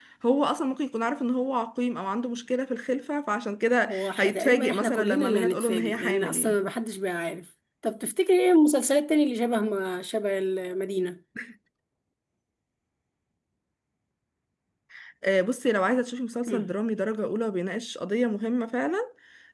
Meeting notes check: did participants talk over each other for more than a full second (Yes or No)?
Yes